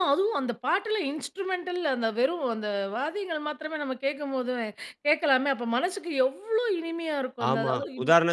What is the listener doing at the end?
taking over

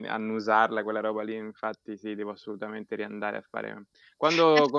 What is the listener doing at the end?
listening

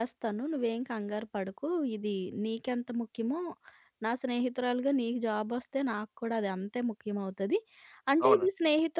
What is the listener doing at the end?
listening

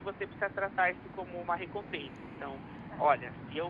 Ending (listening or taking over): listening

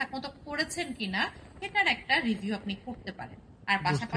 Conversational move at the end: listening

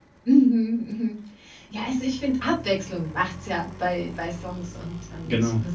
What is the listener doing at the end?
listening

